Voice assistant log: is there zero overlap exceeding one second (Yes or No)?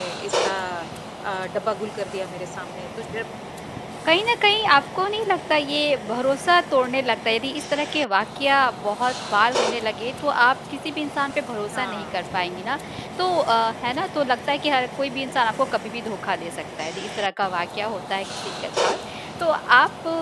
Yes